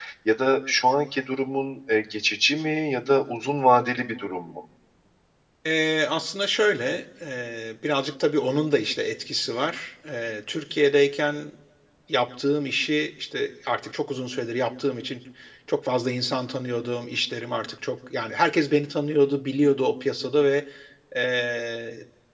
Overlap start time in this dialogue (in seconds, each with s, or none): none